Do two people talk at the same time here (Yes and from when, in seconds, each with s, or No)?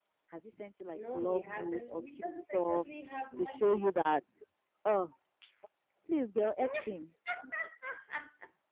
Yes, from 0.9 s